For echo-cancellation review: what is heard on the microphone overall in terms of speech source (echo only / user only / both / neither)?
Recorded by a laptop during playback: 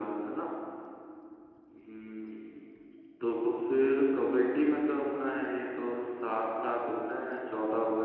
echo only